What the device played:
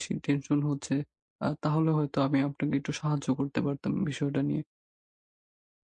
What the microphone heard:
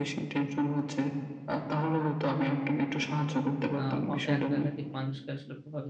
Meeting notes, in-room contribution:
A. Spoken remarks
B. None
A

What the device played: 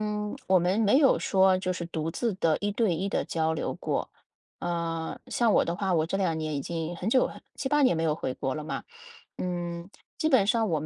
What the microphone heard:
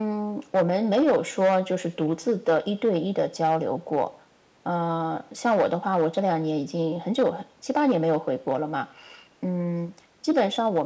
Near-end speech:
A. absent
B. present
A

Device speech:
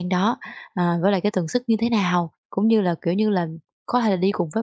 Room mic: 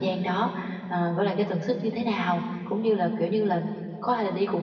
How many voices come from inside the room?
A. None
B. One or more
A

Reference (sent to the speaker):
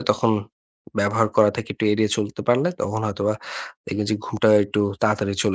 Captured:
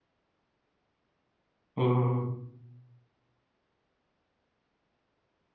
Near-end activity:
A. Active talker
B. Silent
A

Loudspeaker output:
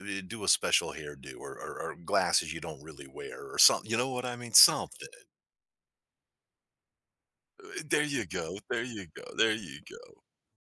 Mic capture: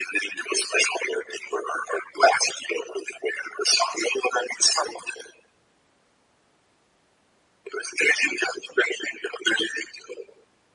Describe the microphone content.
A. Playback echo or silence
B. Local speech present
A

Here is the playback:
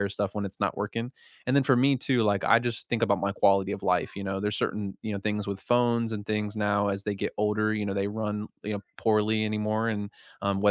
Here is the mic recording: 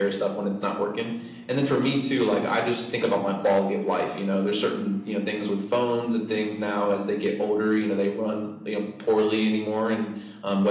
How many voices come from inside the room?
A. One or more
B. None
B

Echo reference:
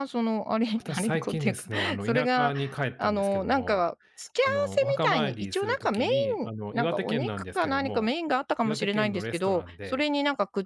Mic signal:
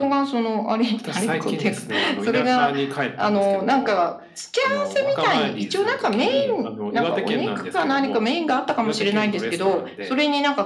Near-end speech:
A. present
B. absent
B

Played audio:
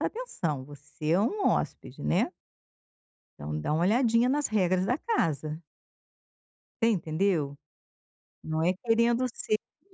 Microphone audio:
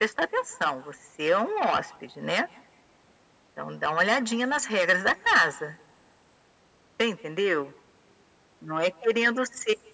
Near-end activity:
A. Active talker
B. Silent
B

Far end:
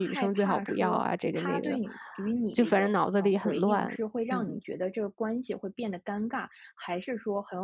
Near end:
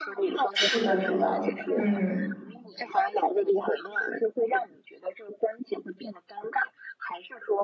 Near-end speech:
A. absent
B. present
B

